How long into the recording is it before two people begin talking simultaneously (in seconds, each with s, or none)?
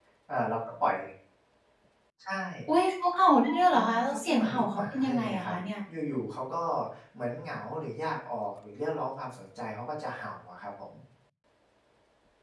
3.7 s